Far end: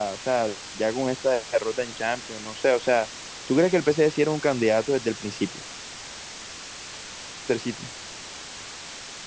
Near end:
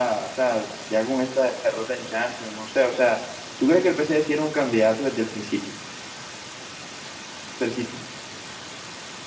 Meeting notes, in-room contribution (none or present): none